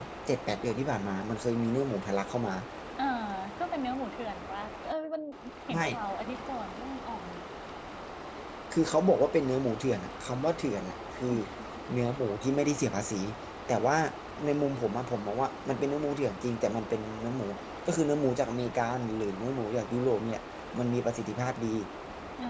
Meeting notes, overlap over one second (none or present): none